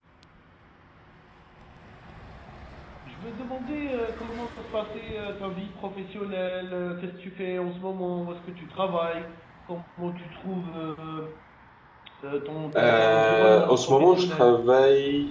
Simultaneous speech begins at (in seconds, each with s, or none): 12.8 s